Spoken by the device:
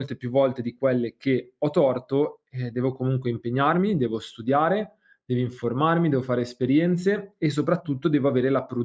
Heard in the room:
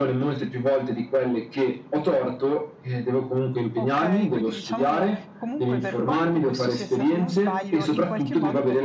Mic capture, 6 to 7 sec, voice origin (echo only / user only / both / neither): both